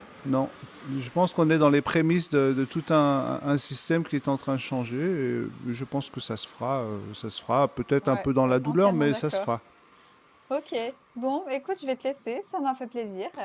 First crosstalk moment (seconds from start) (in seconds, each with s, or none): 8.0 s